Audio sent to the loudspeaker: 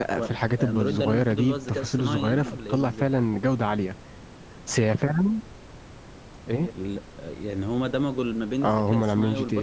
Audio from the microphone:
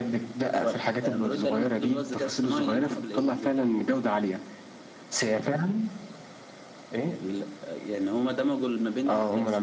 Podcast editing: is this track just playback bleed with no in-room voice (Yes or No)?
Yes